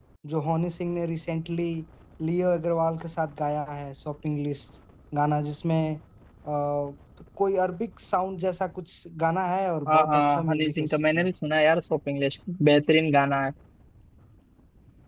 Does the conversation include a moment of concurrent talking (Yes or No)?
Yes